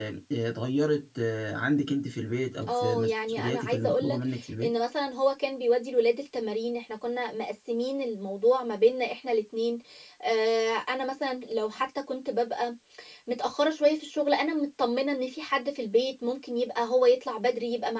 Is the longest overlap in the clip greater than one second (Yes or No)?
Yes